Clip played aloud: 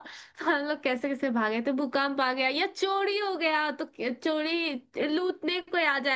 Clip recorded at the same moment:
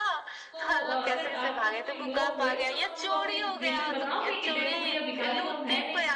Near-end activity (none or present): present